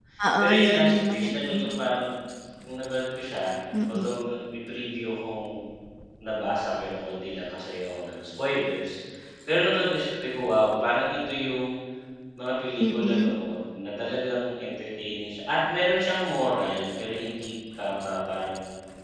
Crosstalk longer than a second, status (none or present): present